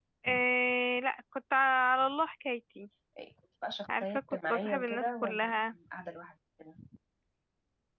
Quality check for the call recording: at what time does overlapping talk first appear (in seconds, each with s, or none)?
4.0 s